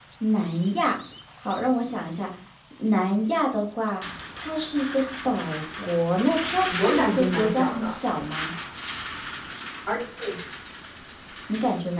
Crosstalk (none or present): present